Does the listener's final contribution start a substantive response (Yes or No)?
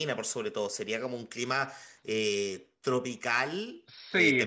Yes